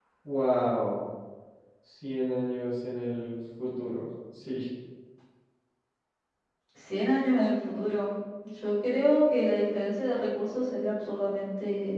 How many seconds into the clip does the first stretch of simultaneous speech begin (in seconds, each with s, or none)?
none